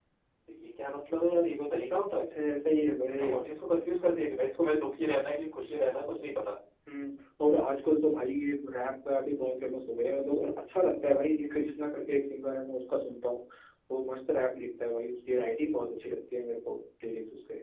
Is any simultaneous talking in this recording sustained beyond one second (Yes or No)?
No